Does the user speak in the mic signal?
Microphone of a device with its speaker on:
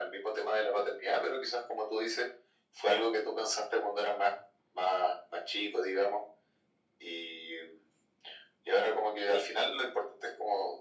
No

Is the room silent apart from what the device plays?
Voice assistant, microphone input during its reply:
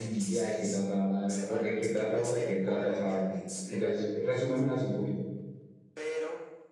No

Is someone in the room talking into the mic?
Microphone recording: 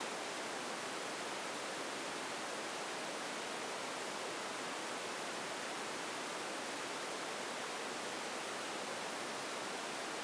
No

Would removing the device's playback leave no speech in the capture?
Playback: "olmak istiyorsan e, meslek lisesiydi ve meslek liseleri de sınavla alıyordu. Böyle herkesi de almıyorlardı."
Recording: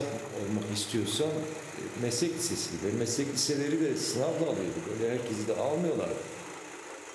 Yes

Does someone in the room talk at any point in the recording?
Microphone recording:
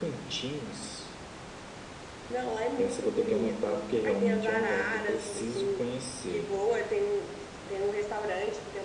No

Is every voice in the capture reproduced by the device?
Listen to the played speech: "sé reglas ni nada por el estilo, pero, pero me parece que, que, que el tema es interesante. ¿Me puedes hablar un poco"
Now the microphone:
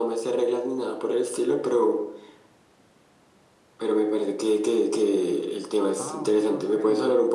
No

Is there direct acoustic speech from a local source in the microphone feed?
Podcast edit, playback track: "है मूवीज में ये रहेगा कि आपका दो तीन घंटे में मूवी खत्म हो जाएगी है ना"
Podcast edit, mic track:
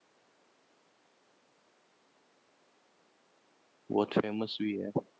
Yes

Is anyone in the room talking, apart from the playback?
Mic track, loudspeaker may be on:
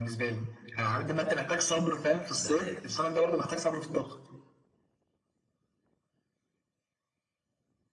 Yes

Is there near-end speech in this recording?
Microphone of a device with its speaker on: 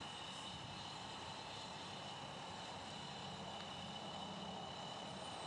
No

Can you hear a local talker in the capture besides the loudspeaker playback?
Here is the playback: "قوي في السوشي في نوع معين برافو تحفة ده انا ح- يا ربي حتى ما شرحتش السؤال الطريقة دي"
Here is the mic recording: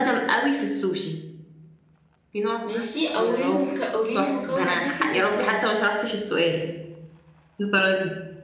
Yes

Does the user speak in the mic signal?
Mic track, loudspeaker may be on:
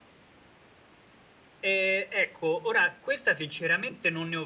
Yes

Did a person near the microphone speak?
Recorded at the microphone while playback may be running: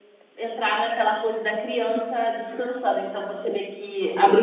No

